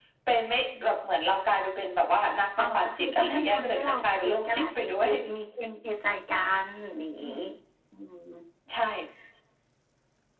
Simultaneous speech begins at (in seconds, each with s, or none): 2.6 s